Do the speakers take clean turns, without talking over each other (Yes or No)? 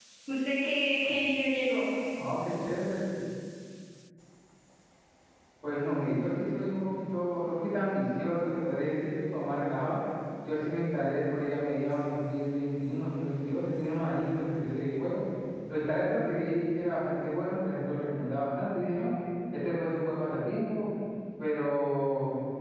Yes